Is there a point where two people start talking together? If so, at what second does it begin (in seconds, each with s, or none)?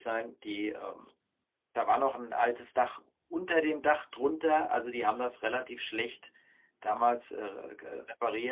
none